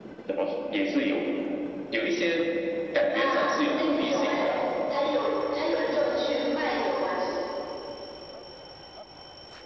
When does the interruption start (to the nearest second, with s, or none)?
3 s